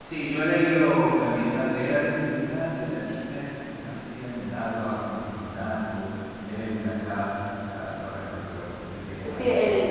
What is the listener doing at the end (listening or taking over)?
taking over